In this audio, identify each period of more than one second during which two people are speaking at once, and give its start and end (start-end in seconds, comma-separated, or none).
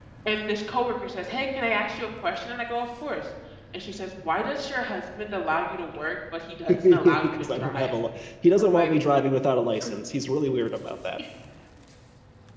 6.7-7.9